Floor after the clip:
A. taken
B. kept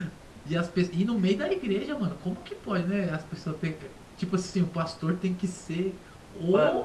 B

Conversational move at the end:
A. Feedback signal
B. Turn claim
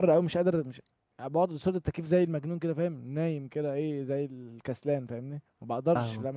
B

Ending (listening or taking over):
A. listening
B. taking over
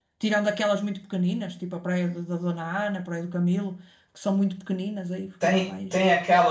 B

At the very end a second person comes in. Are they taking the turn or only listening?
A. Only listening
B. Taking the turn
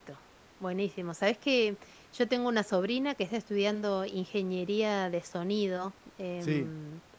A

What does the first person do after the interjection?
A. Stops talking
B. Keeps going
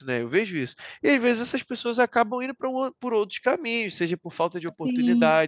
B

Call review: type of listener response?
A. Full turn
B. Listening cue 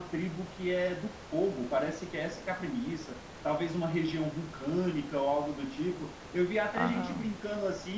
B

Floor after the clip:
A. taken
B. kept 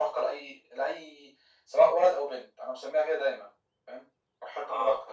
A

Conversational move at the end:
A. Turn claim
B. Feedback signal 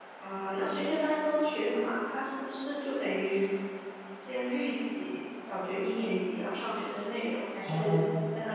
B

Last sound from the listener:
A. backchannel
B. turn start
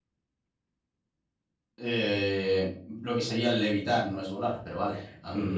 B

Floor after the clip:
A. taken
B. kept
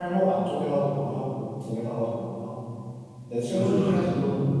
A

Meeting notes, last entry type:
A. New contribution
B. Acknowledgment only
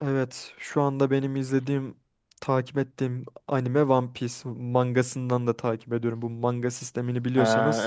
A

